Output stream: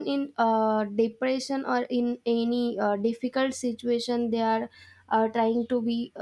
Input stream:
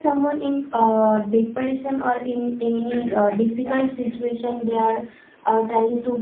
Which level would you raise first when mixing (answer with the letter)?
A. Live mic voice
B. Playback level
A